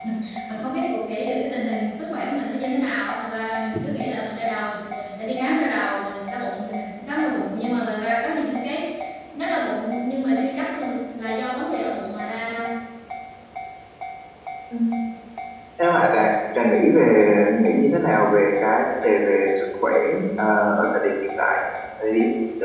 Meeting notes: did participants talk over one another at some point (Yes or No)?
No